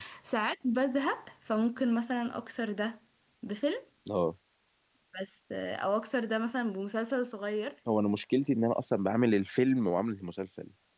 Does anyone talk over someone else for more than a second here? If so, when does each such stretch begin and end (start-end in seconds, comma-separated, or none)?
none